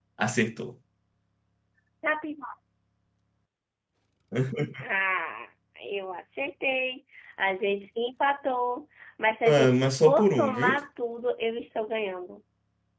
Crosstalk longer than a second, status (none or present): present